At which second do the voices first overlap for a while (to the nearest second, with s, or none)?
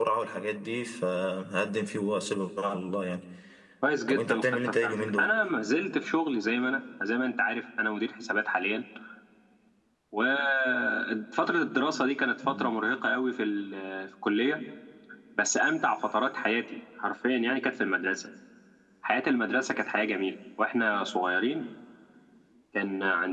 4 s